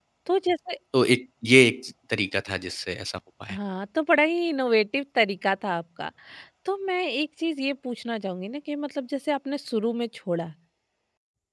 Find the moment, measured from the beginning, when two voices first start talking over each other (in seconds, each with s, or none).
none